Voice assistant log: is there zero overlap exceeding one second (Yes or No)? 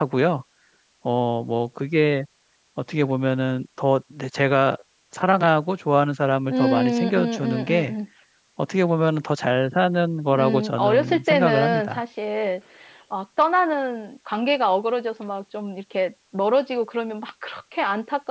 No